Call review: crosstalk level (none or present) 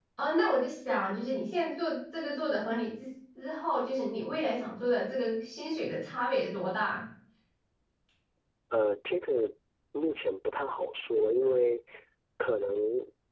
none